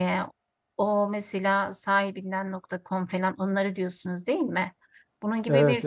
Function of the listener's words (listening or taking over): listening